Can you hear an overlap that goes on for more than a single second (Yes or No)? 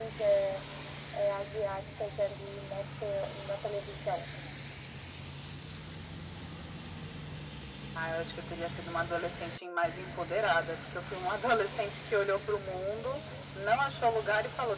No